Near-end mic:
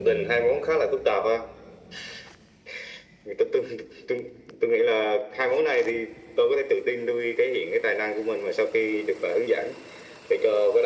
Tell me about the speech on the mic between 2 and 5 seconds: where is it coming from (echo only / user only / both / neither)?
echo only